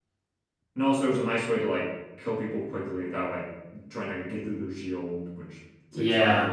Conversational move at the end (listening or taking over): taking over